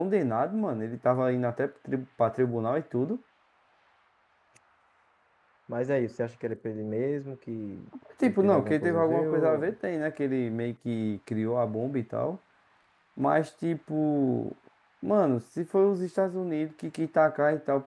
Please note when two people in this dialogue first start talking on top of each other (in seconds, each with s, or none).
8.2 s